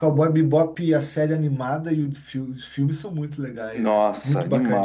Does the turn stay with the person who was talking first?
No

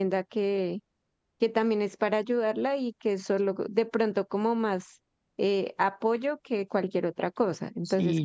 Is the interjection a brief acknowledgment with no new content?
No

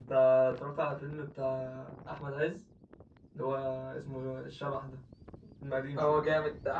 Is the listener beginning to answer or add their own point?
Yes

